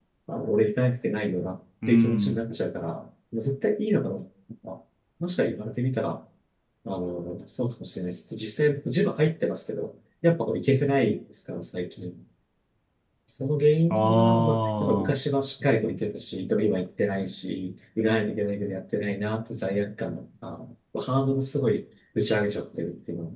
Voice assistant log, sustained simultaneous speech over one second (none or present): present